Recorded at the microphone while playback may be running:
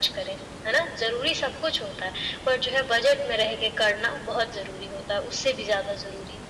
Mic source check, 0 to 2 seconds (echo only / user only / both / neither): echo only